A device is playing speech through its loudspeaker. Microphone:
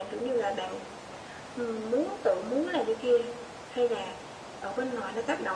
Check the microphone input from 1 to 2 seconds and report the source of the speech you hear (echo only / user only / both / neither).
echo only